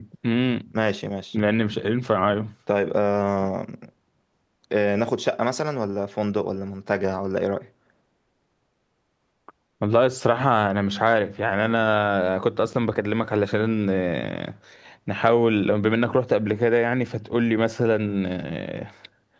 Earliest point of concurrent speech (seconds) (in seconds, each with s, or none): none